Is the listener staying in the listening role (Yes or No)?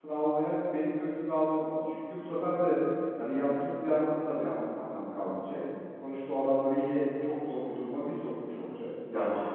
No